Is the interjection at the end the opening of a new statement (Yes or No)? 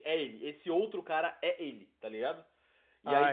No